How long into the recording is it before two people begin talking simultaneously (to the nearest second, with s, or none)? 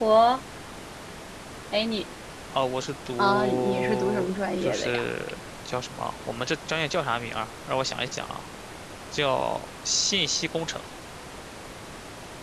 3 s